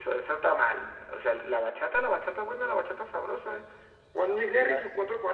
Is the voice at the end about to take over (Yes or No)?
No